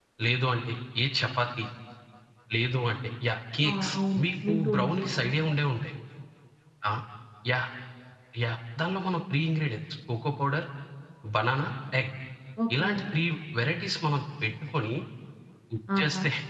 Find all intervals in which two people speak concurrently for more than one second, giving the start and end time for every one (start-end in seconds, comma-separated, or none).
3.7-5.4